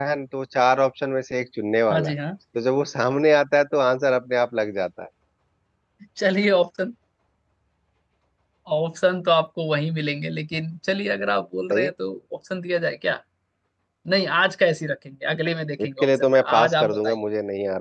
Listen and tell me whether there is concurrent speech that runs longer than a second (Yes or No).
Yes